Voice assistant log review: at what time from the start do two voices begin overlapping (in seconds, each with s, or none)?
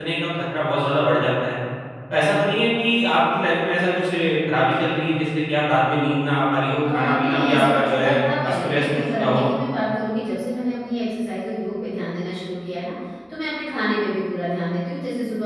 6.8 s